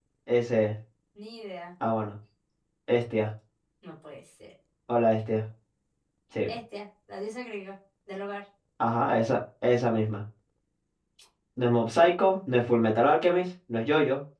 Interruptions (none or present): none